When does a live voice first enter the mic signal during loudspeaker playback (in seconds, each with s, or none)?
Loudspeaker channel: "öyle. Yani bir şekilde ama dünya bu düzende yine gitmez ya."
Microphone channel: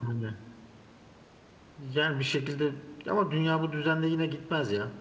none